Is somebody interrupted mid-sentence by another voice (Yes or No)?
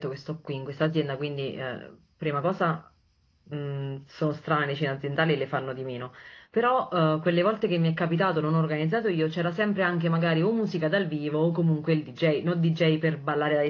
No